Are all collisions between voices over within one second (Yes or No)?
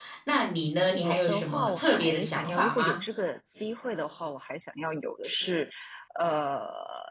No